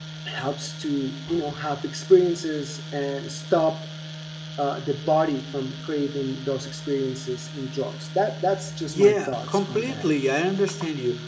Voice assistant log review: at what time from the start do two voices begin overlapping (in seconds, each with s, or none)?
8.9 s